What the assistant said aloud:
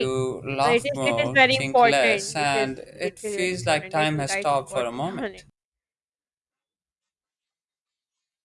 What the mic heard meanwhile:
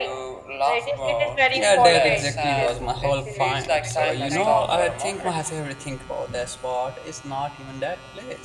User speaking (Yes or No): Yes